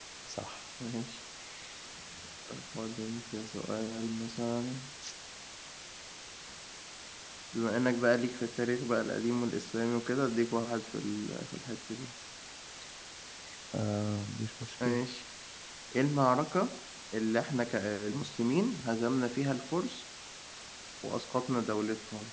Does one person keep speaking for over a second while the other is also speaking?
No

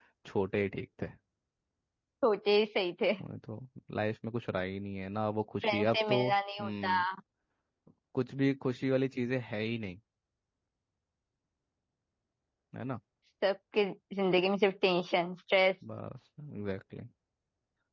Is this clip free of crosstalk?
No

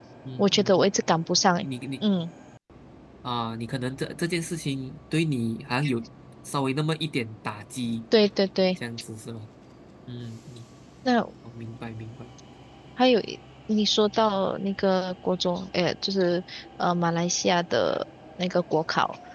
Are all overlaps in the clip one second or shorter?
Yes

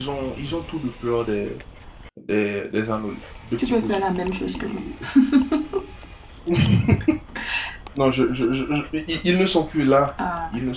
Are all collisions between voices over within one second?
Yes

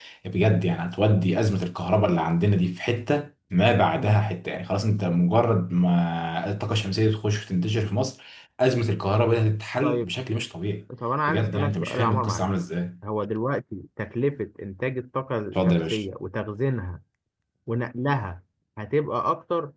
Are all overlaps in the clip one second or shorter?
No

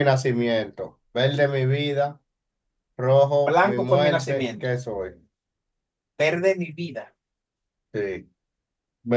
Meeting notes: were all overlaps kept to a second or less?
No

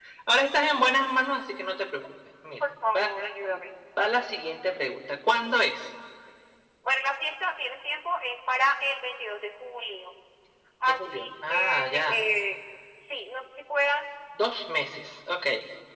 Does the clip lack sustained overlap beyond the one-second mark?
No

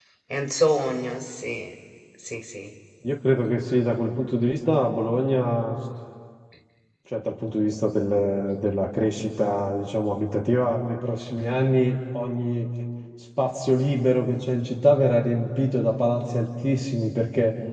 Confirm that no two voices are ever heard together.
Yes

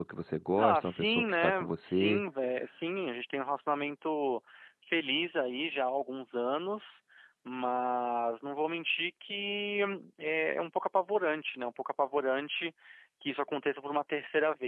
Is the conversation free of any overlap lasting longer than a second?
No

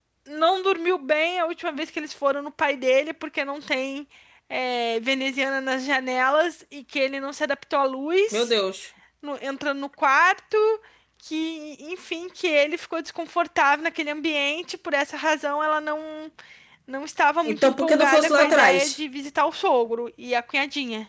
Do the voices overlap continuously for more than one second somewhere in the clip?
Yes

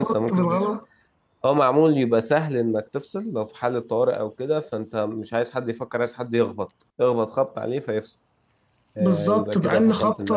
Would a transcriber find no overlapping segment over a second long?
No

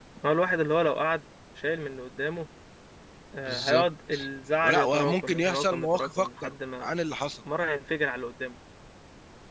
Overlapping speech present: Yes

